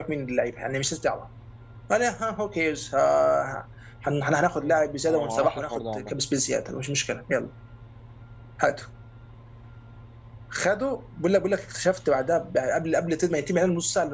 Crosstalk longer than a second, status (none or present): present